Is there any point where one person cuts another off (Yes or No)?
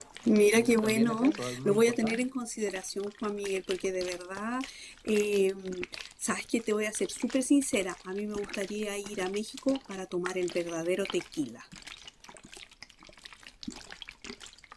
Yes